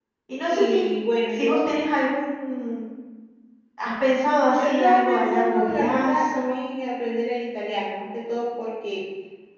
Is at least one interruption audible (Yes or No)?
Yes